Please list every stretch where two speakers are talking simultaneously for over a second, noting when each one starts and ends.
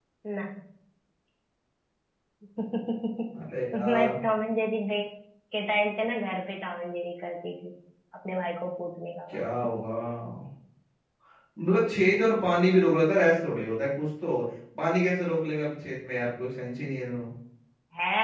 none

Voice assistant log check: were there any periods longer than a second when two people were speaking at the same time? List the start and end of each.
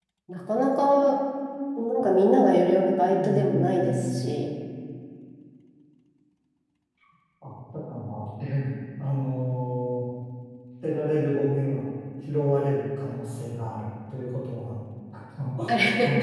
3.0-4.2

